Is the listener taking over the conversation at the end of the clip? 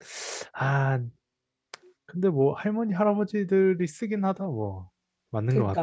Yes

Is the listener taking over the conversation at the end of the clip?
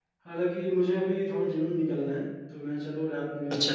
No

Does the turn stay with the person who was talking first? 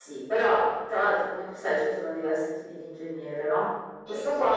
Yes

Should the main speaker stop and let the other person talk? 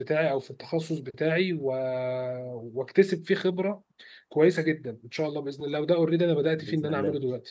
No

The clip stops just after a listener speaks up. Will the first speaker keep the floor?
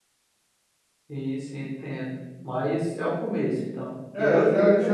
No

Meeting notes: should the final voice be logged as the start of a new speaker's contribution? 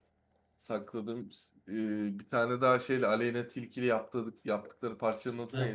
Yes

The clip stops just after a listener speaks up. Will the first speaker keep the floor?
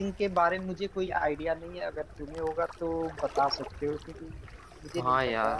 No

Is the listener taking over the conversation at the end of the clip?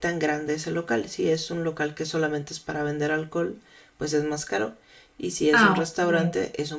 No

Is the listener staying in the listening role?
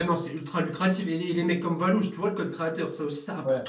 No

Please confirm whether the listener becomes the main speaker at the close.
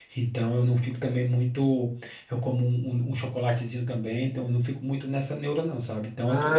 Yes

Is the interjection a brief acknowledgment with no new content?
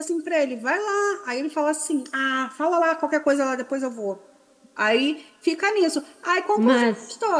Yes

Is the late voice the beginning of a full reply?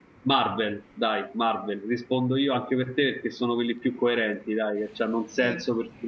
No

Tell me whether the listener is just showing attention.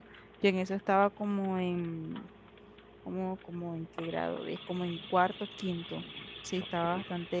Yes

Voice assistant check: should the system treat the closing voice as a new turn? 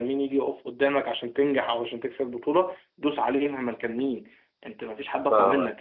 Yes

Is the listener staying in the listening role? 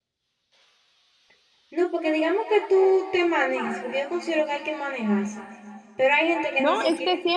No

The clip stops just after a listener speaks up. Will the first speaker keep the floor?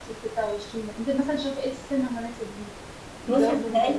No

